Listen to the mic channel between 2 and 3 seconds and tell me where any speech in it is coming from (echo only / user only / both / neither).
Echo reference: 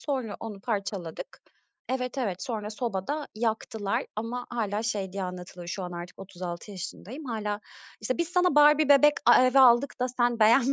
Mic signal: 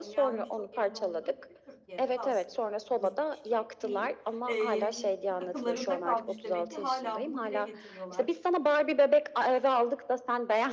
both